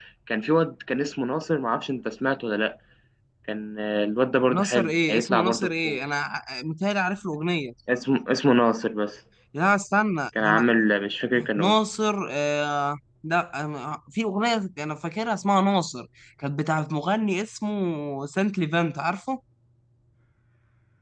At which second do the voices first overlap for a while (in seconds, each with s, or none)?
4.5 s